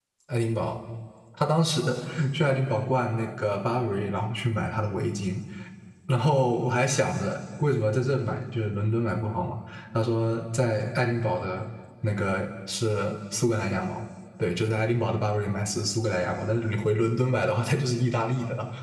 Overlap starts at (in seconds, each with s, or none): none